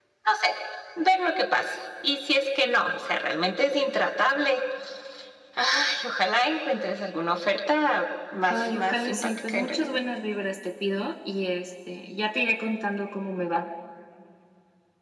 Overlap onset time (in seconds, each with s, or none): 8.5 s